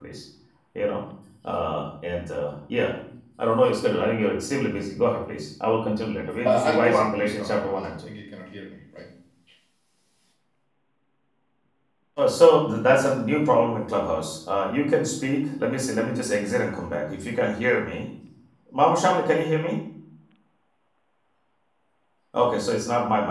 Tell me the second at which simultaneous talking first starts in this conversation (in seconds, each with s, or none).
6.4 s